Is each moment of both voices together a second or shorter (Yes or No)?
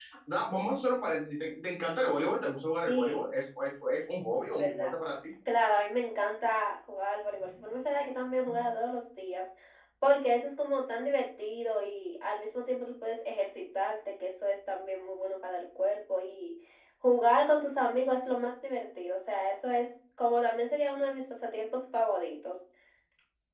Yes